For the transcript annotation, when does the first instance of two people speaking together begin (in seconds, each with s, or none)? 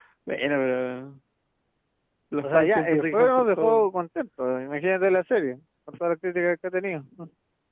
2.4 s